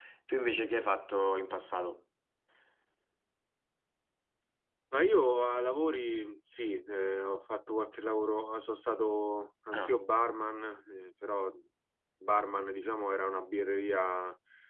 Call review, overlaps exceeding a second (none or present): none